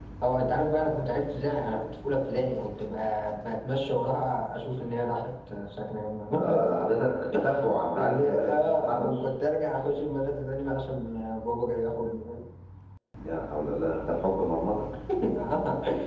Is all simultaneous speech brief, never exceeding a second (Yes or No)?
No